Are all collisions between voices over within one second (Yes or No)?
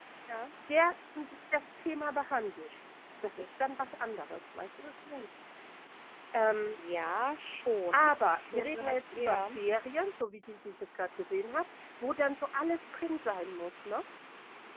No